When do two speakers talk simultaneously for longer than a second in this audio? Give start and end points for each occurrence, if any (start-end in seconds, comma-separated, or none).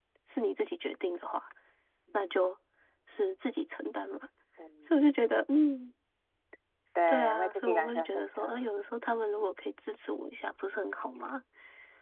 7.1-8.7